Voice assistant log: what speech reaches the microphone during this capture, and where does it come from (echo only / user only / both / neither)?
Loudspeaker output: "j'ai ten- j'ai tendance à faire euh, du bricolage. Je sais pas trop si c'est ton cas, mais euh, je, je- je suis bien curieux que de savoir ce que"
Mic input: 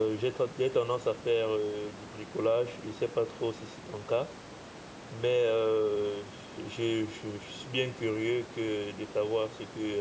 echo only